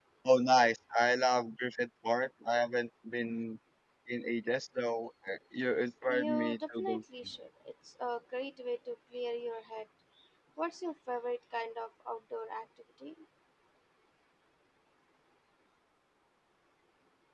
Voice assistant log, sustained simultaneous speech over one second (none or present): present